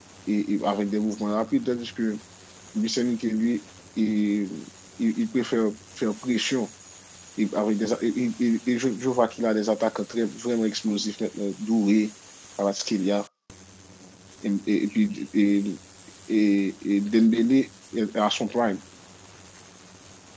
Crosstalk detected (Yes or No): No